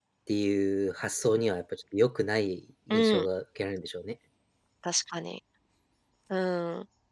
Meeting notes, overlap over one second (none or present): none